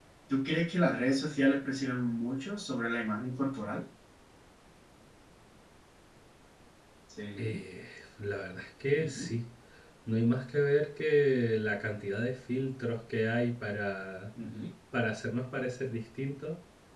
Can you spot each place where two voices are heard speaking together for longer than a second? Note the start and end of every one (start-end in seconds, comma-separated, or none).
none